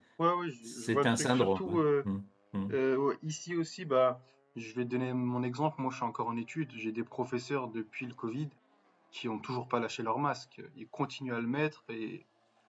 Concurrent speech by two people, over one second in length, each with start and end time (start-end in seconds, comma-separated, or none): 0.7-2.0